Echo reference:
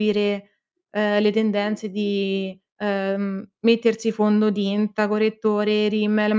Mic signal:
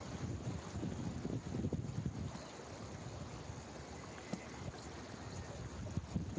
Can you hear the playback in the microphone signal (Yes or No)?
No